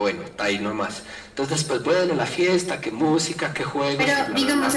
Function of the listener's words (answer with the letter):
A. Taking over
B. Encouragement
A